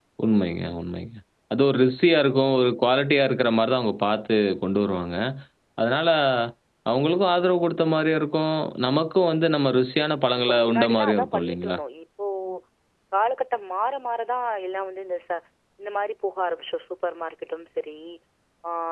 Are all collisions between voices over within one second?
No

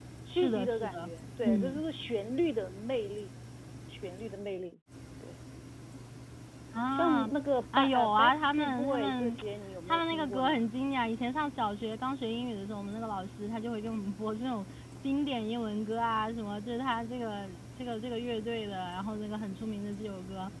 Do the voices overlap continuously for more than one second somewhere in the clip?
Yes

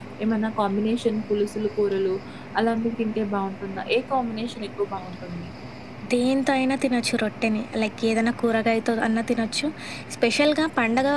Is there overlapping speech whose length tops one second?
No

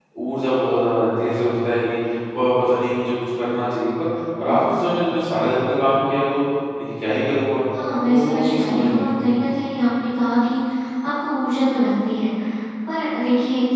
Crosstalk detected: Yes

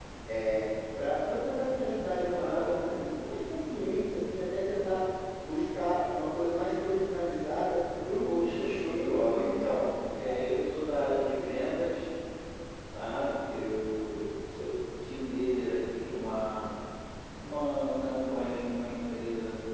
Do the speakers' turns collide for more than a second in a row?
Yes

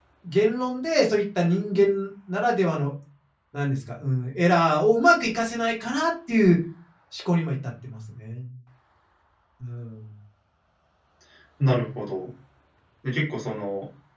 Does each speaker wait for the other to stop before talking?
Yes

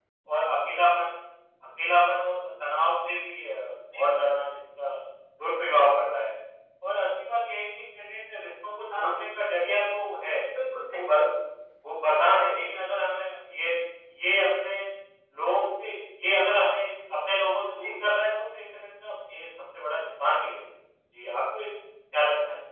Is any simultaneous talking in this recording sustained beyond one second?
No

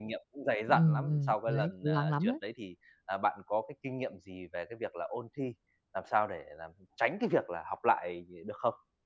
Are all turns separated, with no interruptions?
No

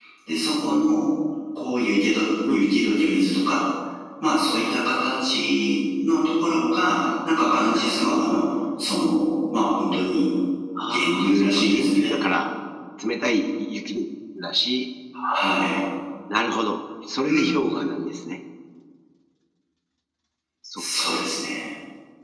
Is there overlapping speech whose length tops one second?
Yes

